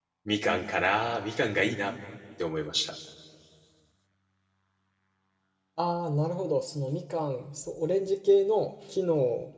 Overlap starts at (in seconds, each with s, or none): none